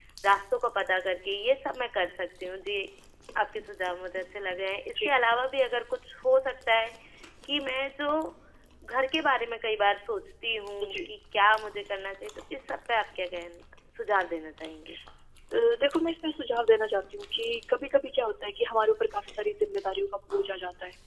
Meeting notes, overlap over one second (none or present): none